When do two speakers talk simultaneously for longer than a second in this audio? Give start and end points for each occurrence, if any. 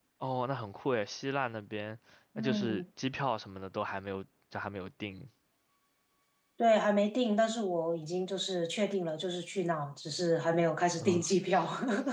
none

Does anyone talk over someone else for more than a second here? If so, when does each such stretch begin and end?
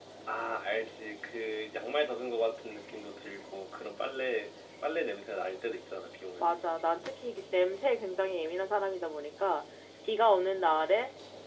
none

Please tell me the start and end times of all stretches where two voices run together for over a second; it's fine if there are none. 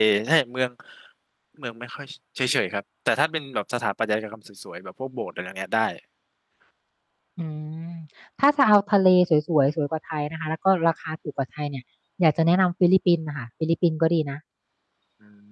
none

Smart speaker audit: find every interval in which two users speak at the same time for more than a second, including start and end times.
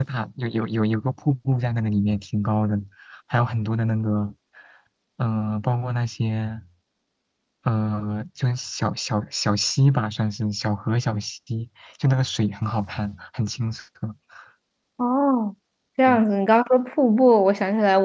none

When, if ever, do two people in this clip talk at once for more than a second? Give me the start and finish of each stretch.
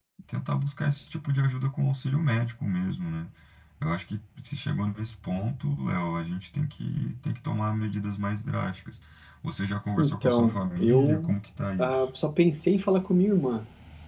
10.0-11.3

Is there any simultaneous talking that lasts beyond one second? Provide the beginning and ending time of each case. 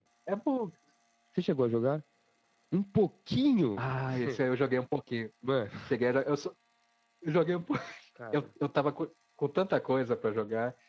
none

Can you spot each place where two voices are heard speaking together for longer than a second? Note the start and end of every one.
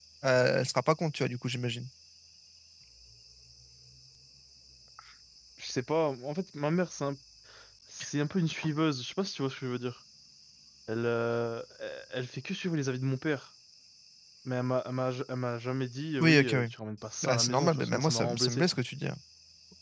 17.3-18.7

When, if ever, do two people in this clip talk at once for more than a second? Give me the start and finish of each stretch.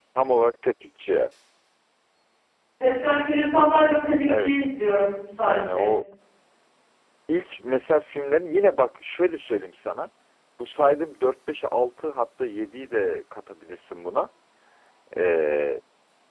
none

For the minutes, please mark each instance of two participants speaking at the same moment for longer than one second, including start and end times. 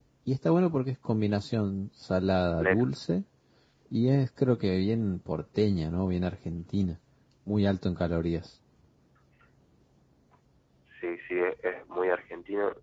none

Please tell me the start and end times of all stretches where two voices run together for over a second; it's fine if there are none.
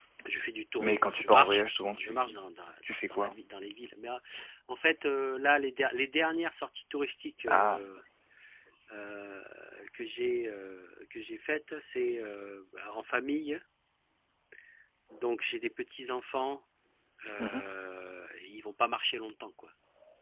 0.8-2.3

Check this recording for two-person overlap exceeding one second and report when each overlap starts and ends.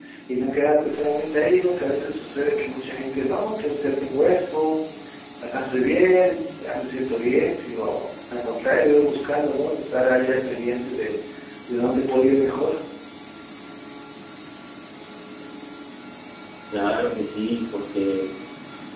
none

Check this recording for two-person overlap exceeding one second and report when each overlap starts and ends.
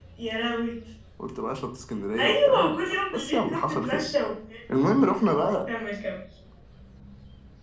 2.2-4.0

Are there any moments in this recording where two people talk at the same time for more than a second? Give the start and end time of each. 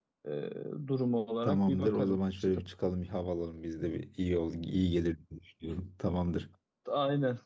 1.4-2.6

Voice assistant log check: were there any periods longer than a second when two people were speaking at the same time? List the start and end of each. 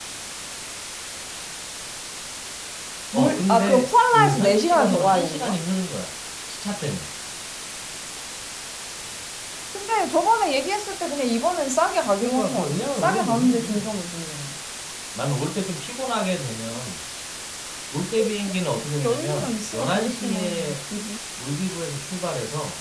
3.1-5.6, 12.2-14.0, 19.0-20.8

